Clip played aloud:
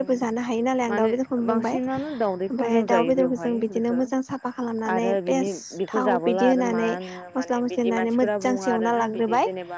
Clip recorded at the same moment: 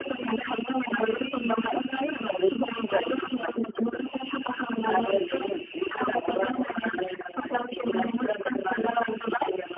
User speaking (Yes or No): No